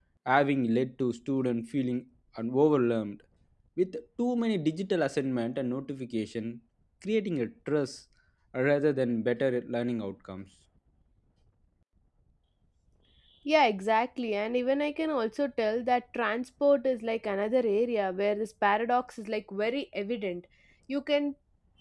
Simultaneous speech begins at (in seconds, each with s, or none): none